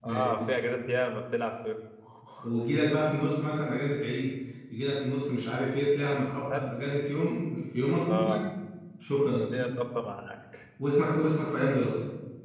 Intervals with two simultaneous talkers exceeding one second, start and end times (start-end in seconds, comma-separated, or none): none